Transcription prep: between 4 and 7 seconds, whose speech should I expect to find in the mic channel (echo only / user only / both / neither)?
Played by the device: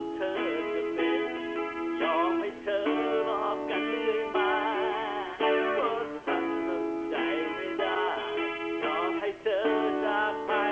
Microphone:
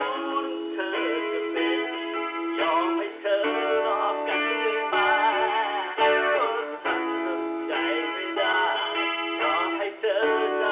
echo only